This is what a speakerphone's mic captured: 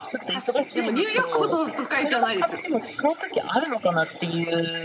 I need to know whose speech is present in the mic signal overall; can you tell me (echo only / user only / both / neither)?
both